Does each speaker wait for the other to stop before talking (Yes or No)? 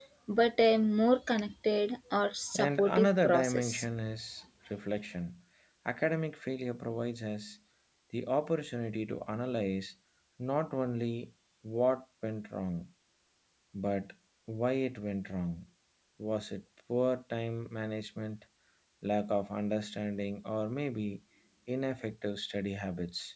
No